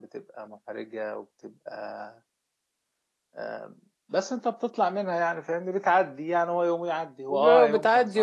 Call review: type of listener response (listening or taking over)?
taking over